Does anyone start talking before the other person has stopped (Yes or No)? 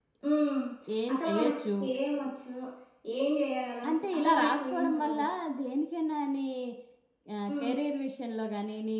Yes